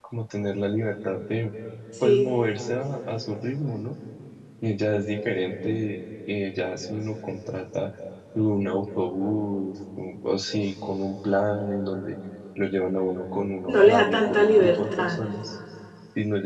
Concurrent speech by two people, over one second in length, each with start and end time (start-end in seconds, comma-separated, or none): 13.7-15.2